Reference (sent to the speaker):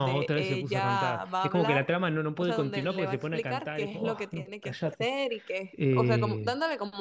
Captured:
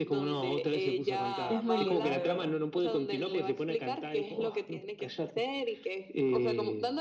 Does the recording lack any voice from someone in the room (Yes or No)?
No